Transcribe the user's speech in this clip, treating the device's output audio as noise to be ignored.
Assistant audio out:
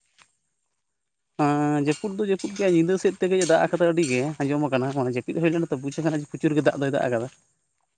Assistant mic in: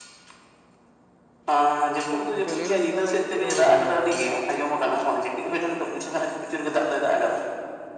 ᱜᱚᱝᱠᱮ ᱞᱟᱹᱭ ᱫᱟᱹᱞᱤᱧ ᱛᱟᱦᱚᱞᱮ ᱪᱮᱫ ᱦᱩᱲᱩ ᱠᱚᱵᱮᱱ ᱨᱚᱦᱚᱭ ᱮᱫᱟ?

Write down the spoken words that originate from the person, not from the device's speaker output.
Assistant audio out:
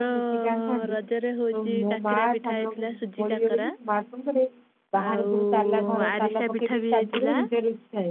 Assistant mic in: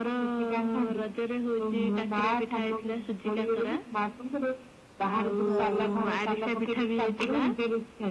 ହଁ।

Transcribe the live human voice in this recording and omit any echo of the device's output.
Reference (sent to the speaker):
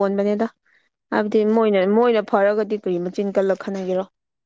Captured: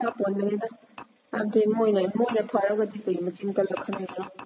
none

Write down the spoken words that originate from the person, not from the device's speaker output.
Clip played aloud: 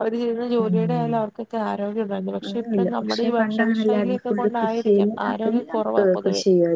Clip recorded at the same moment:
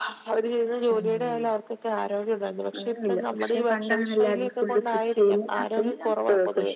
none

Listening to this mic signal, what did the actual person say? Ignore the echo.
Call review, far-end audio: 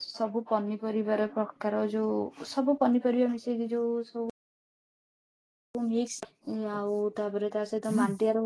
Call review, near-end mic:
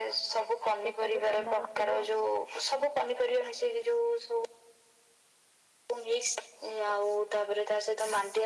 ପେଟକୁ ଥଣ୍ଡା ରଖିବ,

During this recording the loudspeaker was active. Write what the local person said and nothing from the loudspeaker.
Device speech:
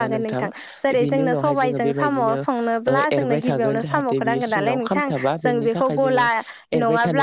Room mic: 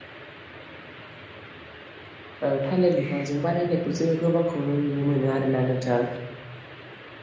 ओ थालिर बिफांजों बानायनायखौ जोङो गोबांखौनो नुनो मोनो आरो ना नोंथां

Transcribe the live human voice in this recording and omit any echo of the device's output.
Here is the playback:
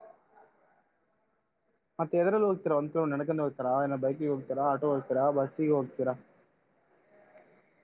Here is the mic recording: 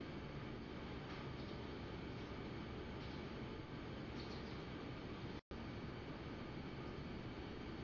none

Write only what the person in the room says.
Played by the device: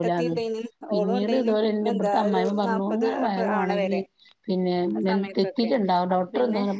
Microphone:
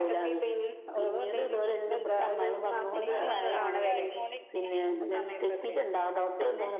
പണികള് ഞാന് അടിച്ചുവാരിക്കോണ്ടിരിക്കണ

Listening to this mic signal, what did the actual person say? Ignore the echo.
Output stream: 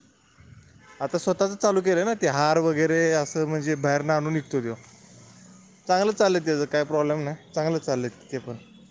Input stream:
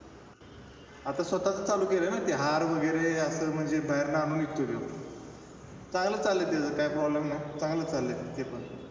none

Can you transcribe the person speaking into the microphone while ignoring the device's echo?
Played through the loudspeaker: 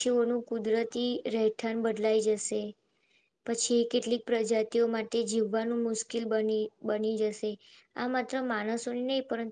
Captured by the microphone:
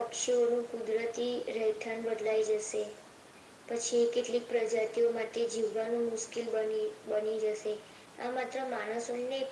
none

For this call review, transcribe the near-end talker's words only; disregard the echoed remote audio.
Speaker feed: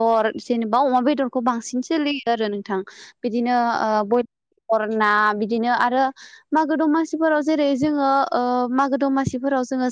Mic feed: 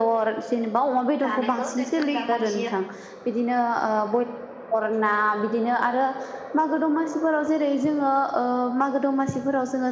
जानायखौ जेन जों दा मानसिया

